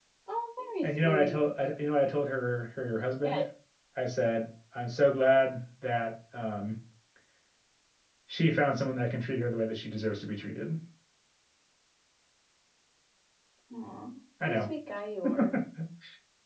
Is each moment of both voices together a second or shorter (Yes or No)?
Yes